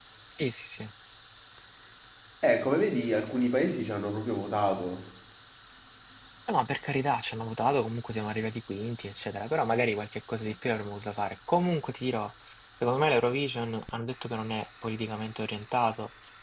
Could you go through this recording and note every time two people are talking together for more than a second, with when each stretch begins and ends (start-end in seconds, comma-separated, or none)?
none